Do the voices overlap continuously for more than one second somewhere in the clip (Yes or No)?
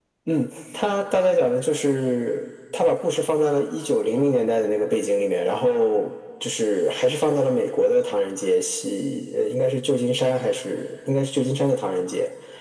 No